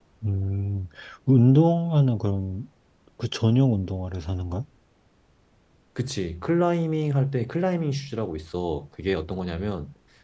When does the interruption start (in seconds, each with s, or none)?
none